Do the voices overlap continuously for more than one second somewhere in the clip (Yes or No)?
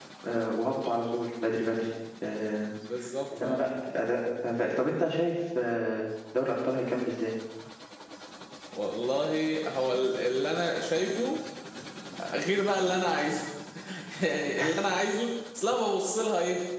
No